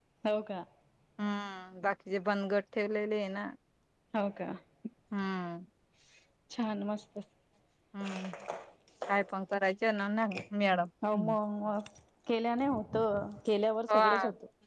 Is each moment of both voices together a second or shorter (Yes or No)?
Yes